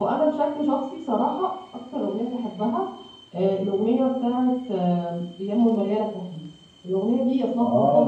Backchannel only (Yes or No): Yes